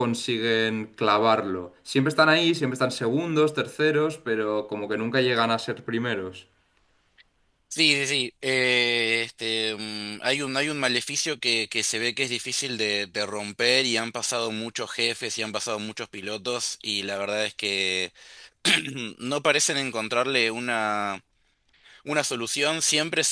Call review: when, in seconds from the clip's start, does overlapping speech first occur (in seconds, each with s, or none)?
none